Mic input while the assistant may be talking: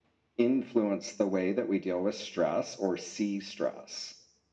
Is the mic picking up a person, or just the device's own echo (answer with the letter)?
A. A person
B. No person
B